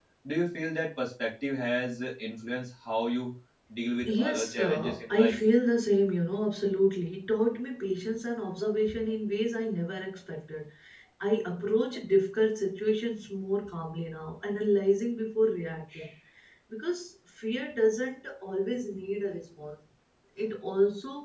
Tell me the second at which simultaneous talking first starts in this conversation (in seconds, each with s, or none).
4.0 s